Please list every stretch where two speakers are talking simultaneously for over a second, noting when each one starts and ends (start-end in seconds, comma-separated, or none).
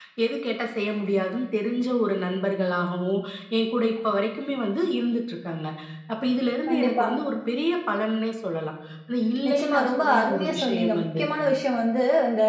9.5-11.2